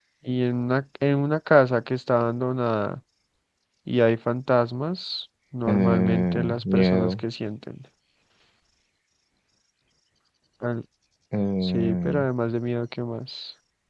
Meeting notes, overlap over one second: present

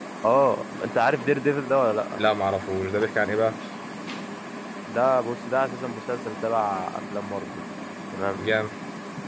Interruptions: none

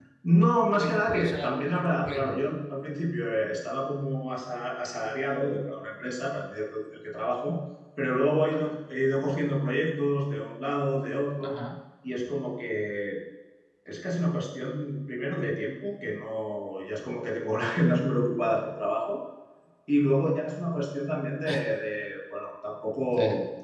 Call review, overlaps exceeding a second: present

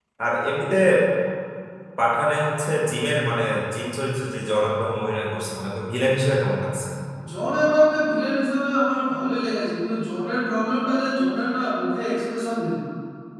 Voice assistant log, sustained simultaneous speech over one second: none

